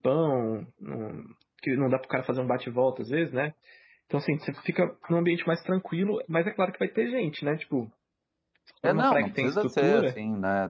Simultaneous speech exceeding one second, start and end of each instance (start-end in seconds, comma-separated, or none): 8.8-10.2